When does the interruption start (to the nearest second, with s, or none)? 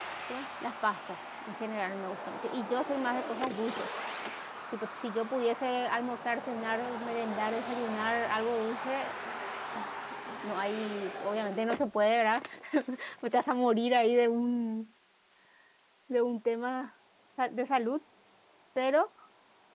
none